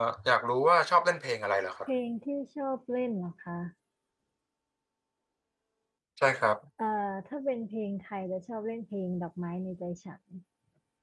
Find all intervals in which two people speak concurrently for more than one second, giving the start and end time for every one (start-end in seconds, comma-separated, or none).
none